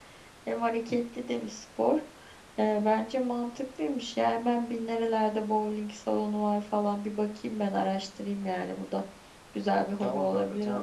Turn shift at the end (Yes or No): Yes